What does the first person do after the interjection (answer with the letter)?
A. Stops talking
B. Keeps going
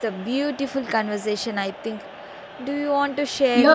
A